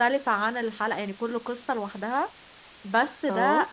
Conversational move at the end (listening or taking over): listening